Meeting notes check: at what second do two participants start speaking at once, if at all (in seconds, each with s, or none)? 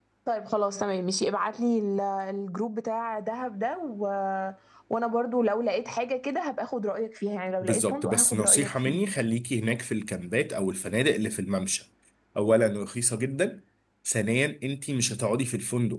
7.6 s